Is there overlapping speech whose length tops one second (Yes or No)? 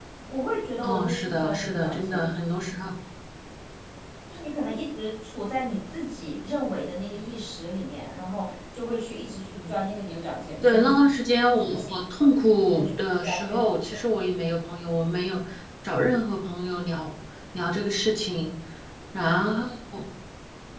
Yes